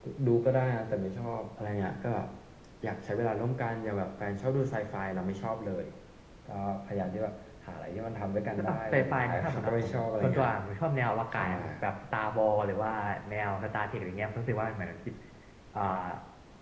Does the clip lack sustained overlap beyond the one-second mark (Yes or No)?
No